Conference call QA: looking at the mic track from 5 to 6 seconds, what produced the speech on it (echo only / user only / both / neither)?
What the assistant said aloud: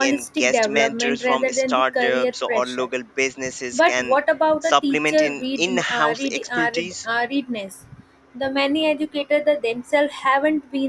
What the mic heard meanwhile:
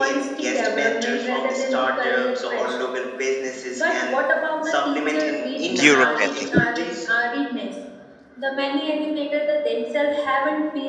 both